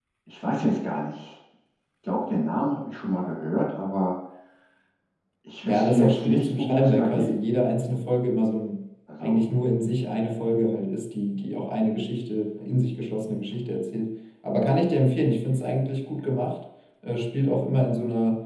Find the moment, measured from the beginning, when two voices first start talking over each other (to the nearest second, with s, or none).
6 s